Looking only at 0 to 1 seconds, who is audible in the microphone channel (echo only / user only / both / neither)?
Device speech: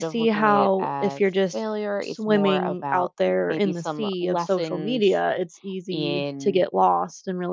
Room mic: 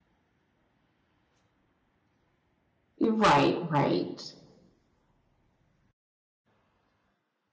neither